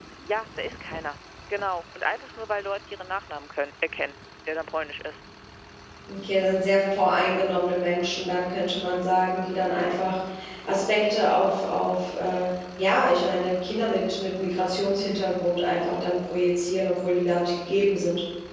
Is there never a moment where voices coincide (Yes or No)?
Yes